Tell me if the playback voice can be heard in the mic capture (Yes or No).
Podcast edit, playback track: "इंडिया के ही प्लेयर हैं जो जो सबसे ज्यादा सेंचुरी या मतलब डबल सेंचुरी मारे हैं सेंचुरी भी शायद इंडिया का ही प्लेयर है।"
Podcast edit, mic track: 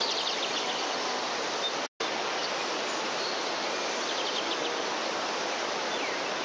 No